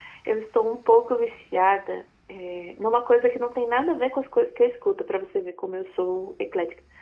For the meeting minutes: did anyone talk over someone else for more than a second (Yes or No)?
No